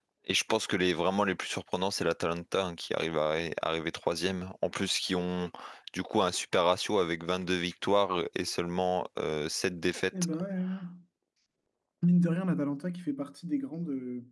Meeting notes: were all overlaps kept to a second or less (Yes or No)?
Yes